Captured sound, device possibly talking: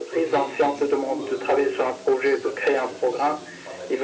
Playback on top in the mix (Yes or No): Yes